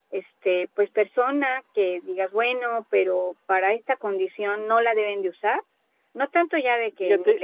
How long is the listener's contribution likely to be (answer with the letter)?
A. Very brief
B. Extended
A